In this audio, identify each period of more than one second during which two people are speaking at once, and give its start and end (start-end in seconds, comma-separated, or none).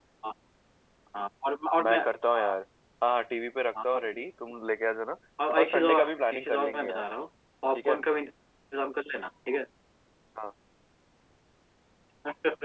5.6-7.0